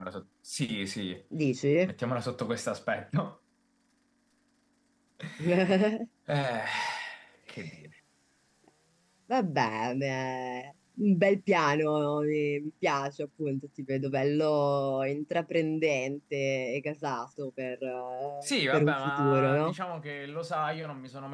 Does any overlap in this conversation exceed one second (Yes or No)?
Yes